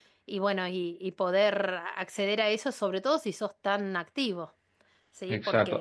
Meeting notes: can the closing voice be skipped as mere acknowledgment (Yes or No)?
No